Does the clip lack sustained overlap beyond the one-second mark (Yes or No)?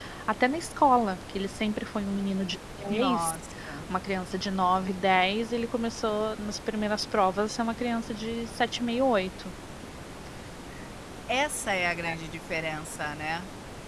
Yes